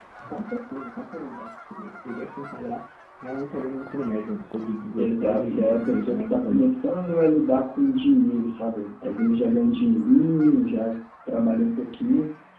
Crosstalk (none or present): present